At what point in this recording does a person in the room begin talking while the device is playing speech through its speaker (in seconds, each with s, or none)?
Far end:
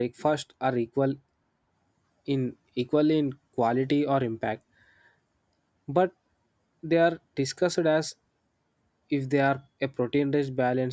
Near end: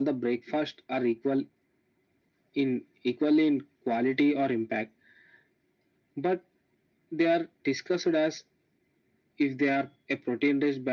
none